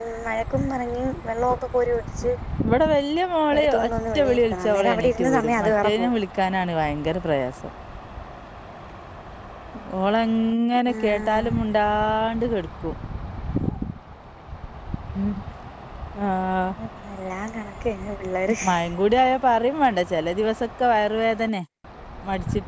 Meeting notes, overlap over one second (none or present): present